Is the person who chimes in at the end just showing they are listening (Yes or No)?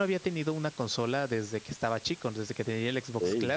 Yes